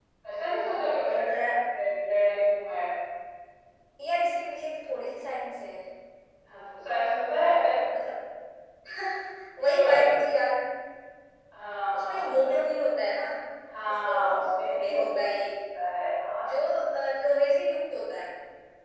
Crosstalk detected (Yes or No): Yes